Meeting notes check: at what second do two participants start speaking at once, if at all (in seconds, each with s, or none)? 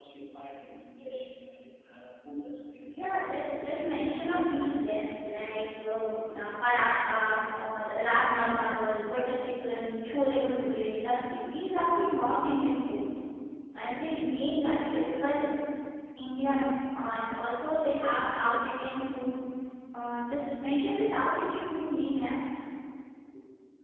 2.9 s